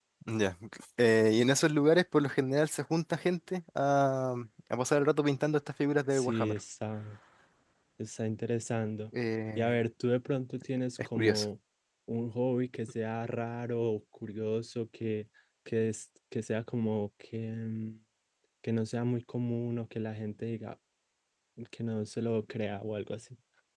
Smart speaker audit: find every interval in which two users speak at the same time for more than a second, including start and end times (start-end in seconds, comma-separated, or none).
none